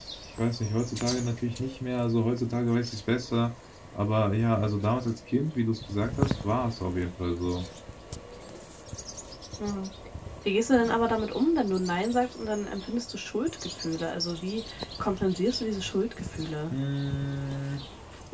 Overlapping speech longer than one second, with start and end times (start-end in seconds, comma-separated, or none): none